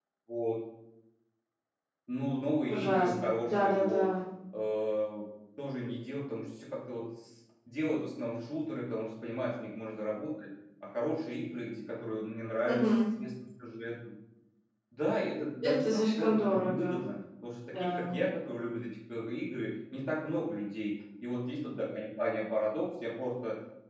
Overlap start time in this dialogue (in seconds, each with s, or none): 2.7 s